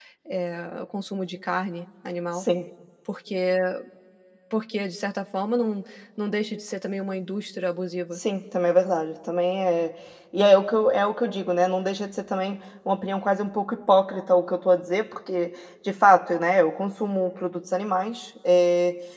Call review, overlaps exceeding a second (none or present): none